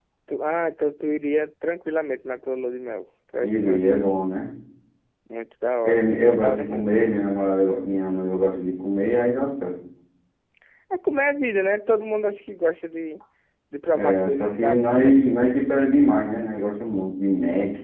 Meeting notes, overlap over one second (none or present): present